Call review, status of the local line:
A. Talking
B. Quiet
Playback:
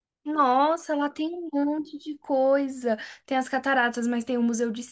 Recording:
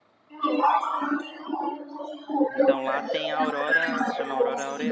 A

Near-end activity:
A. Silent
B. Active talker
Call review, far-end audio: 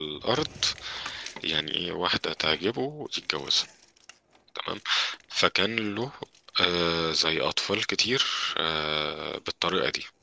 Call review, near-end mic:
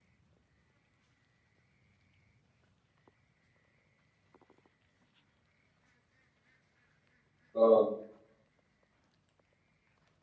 B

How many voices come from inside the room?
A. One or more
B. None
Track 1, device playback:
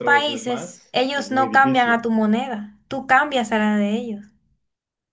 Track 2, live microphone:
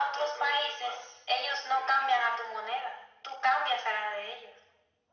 B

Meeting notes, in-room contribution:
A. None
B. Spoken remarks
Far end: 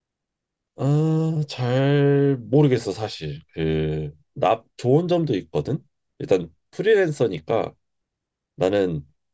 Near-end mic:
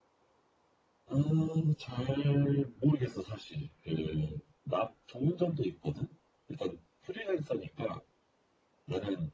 A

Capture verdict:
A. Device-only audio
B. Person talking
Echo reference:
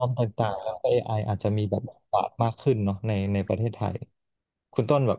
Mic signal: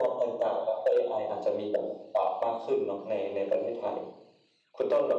A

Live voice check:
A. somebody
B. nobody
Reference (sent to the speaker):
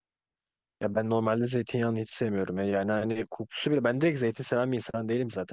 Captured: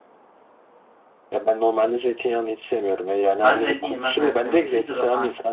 A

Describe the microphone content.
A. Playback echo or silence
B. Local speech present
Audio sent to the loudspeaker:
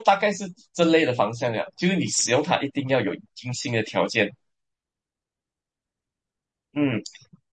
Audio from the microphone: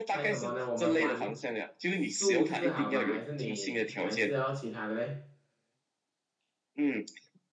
B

